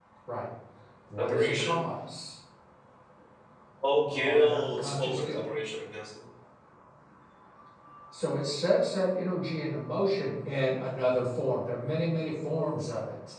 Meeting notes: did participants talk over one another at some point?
Yes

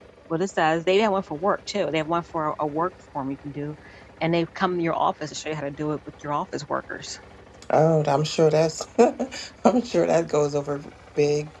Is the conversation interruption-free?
Yes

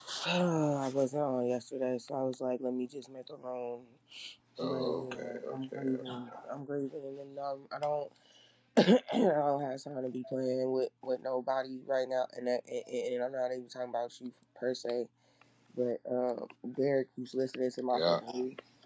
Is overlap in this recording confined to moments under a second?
No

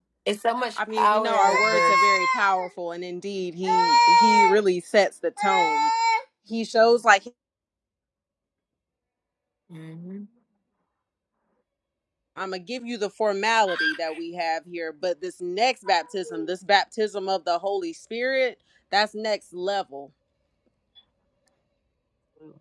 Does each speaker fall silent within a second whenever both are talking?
No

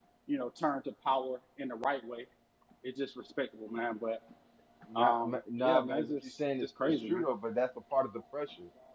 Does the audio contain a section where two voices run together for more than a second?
Yes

